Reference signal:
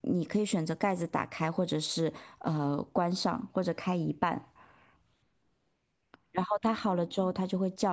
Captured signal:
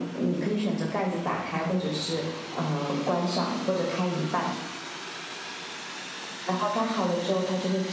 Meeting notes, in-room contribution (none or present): none